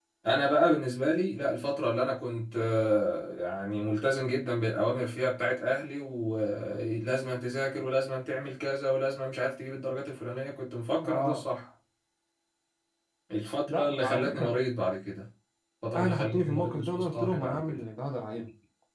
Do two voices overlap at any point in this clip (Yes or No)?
Yes